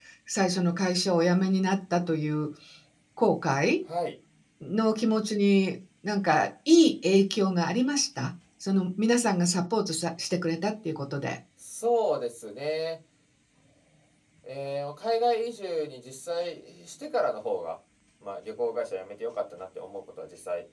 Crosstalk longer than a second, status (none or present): none